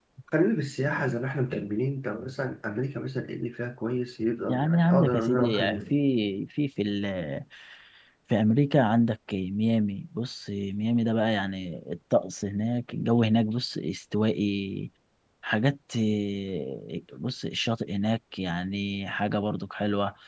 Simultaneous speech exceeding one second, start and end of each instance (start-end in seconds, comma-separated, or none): 4.5-5.9